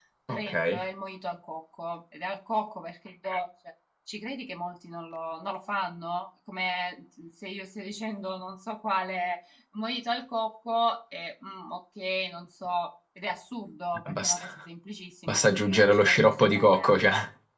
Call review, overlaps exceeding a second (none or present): present